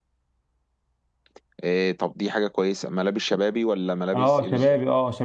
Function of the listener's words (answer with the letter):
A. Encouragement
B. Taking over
B